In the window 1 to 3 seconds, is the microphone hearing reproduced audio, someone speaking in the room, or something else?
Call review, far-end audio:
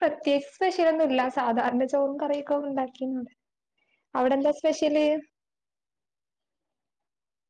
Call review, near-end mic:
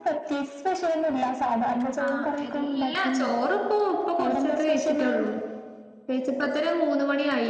both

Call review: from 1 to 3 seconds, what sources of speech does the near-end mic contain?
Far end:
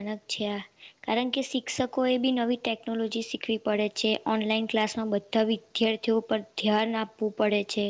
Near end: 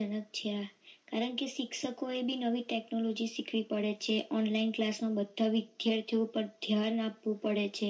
echo only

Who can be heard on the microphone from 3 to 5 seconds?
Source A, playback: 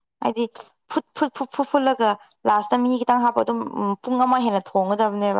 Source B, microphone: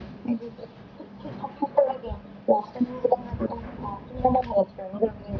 echo only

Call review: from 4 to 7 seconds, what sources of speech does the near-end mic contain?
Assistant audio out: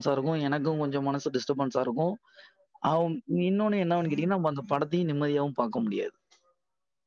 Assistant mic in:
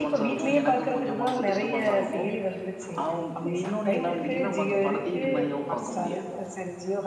both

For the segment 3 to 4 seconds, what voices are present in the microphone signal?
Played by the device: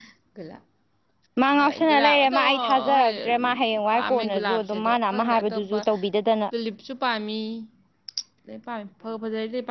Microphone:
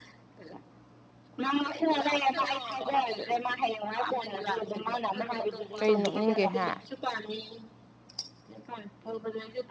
echo only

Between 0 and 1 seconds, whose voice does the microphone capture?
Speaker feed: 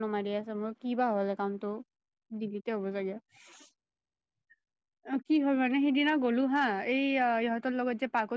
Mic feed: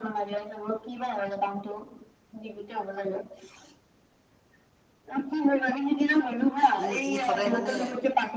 echo only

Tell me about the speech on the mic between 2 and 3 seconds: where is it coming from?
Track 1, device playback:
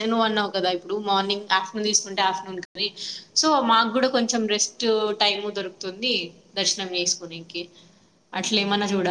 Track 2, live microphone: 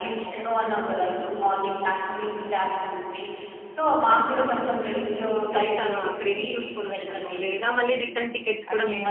echo only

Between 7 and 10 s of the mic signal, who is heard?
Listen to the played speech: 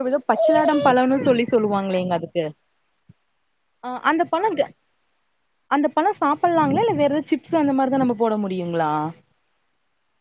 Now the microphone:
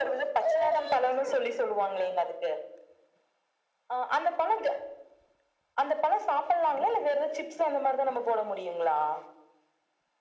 echo only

